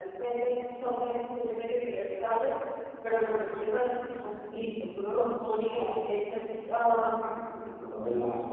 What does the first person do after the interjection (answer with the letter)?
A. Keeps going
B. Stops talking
B